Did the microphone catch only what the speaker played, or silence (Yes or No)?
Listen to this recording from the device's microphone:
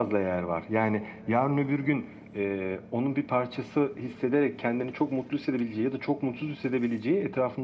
Yes